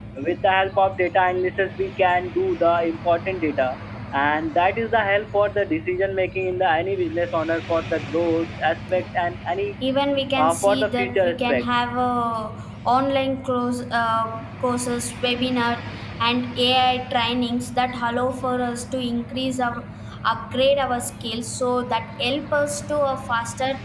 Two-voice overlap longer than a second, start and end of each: 10.4-11.6

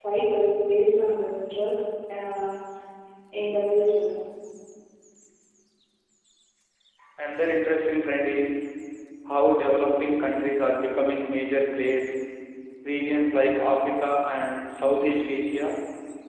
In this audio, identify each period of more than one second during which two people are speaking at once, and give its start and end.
none

